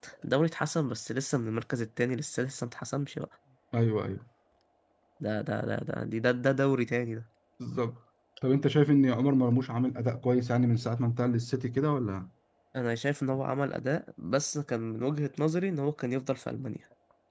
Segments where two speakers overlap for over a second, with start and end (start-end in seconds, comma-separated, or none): none